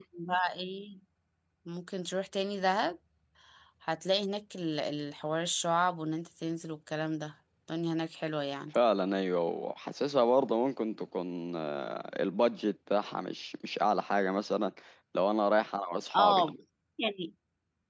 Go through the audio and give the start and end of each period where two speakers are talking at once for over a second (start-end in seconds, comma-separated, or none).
none